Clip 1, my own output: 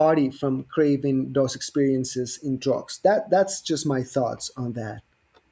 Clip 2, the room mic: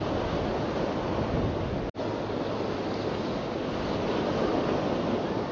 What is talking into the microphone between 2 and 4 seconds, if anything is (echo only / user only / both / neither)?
neither